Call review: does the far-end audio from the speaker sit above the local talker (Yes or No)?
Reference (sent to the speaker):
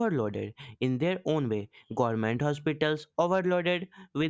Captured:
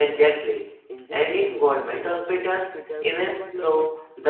No